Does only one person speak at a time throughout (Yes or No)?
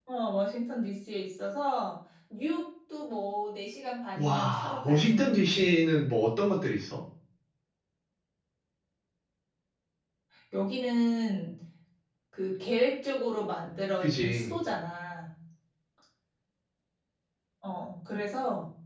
No